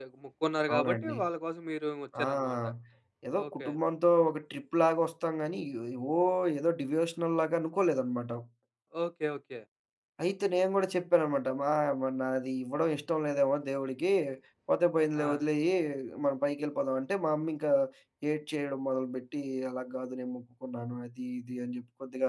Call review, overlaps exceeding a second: none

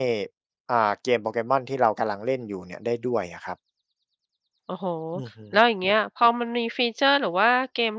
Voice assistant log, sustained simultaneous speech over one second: none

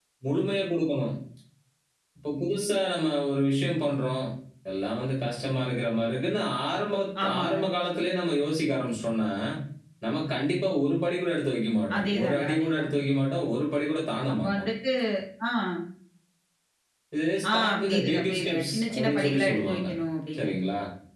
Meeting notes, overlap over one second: present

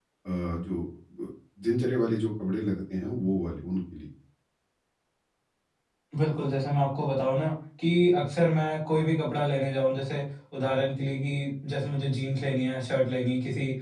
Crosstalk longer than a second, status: none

